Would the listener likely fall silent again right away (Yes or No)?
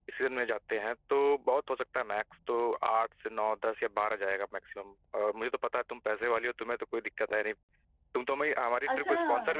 No